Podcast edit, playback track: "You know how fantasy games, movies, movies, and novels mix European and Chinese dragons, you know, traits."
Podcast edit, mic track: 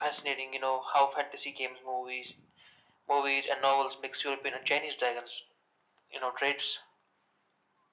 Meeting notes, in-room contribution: none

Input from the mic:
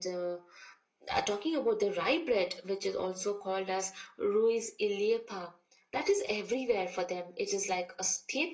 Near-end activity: none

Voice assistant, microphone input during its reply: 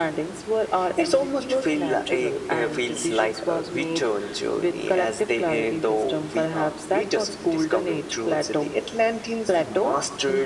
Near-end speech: none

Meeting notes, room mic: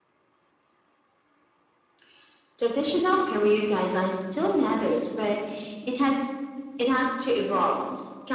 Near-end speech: none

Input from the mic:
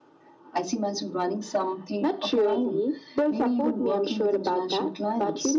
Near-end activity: none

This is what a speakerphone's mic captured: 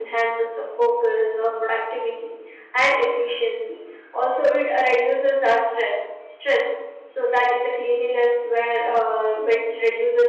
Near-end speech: present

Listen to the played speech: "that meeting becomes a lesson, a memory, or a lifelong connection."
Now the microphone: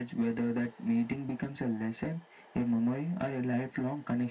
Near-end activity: none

